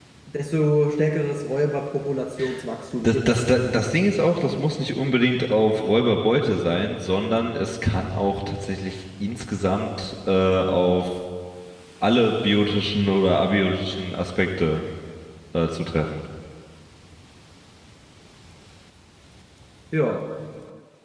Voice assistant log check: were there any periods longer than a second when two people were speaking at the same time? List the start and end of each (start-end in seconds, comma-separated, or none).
none